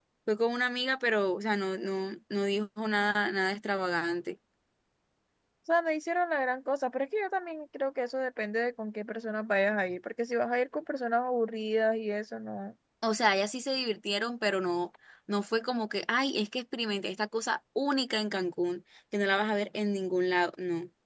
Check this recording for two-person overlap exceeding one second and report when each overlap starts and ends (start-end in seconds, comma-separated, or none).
none